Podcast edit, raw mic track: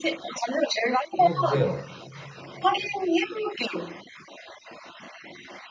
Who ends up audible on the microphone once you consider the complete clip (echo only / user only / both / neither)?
both